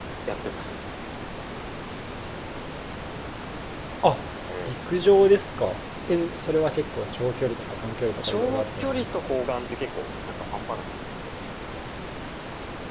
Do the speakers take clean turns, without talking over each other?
No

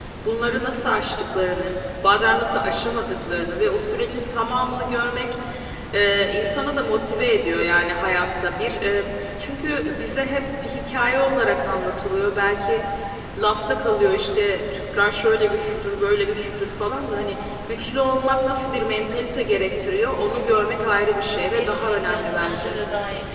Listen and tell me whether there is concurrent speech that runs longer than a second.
Yes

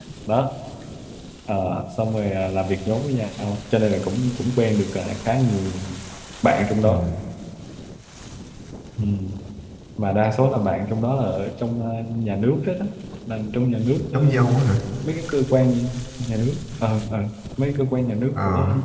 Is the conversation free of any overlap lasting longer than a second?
Yes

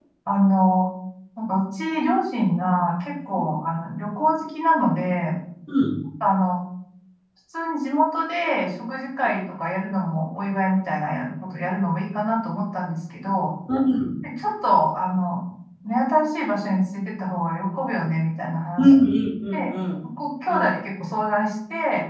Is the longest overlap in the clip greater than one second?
No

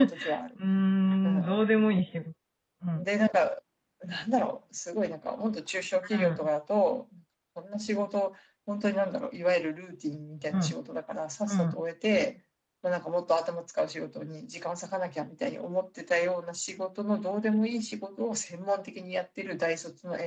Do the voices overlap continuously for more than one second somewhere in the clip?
No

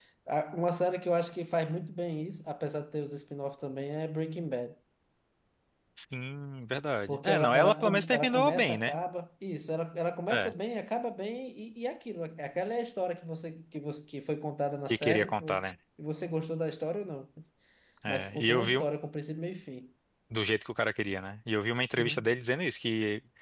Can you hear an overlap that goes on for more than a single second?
Yes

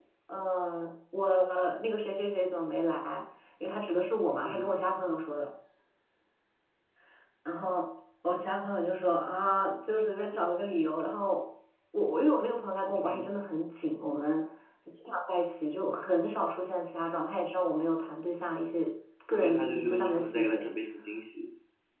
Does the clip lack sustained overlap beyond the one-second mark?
No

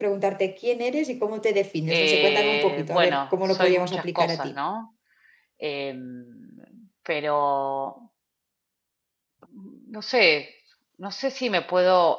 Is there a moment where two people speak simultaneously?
Yes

